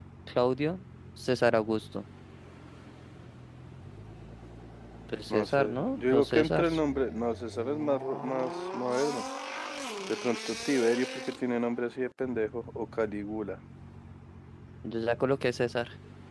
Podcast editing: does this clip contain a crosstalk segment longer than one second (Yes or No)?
Yes